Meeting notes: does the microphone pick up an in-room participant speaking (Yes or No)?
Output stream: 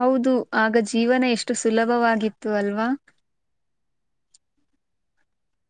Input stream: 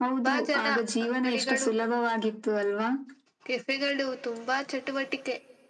Yes